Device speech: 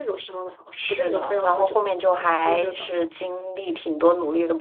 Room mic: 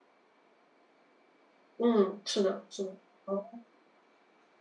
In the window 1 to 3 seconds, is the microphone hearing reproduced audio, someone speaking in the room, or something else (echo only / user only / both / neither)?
user only